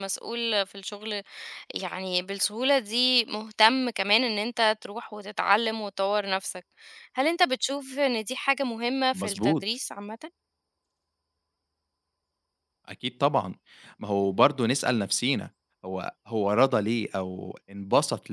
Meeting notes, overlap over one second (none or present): none